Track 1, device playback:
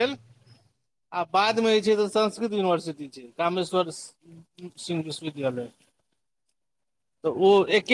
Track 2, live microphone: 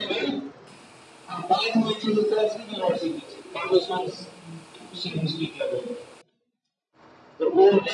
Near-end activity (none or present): none